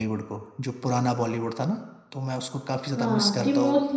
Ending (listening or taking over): taking over